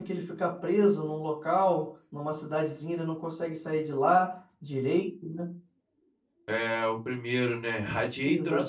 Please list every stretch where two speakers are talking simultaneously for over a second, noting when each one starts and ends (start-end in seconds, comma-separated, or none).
none